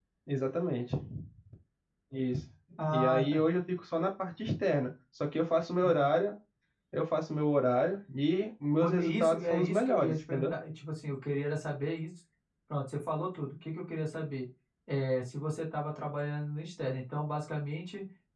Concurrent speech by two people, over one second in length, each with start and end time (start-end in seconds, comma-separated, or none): 8.8-10.5